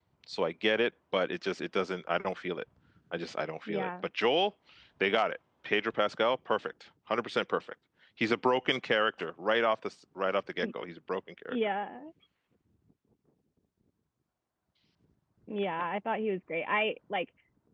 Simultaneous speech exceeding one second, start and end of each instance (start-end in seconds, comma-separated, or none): none